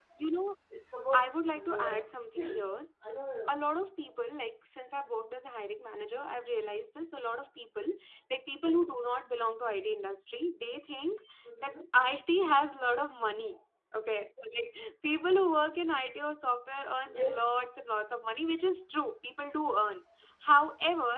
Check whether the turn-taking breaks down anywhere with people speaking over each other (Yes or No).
Yes